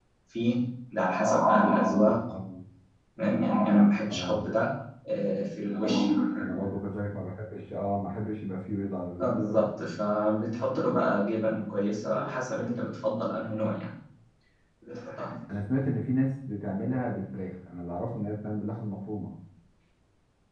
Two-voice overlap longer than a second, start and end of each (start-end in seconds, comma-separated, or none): none